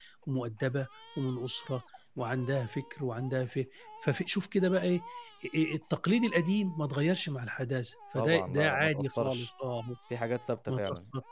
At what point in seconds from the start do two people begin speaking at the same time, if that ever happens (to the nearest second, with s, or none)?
8 s